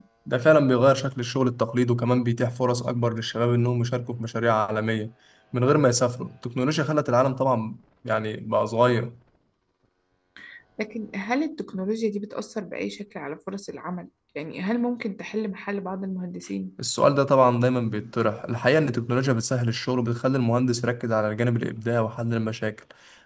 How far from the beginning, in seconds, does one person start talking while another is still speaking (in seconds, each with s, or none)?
none